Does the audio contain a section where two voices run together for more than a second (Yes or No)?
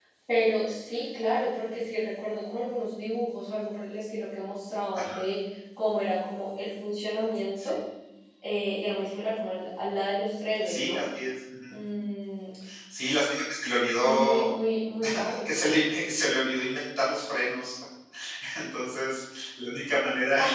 No